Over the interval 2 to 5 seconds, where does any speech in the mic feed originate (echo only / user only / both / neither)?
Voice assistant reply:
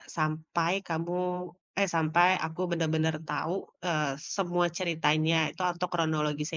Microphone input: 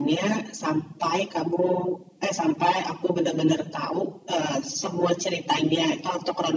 echo only